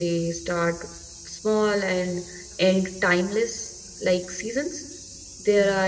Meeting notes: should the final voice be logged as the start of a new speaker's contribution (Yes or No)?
No